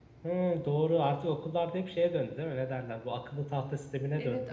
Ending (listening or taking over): taking over